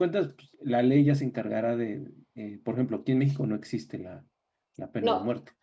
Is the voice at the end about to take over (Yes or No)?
Yes